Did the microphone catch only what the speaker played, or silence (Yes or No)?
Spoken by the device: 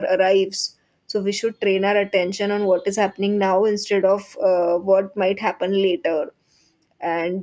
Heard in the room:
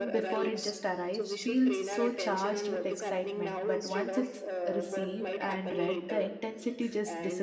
No